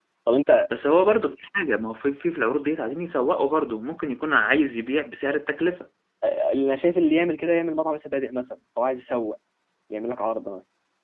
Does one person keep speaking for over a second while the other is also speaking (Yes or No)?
No